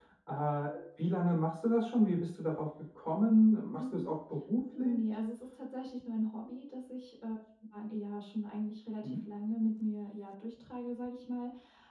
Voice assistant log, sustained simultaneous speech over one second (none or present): none